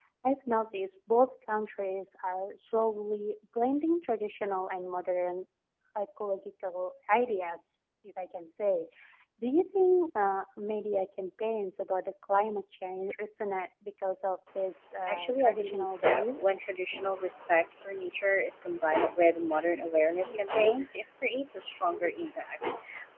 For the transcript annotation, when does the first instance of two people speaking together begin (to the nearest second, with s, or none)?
15 s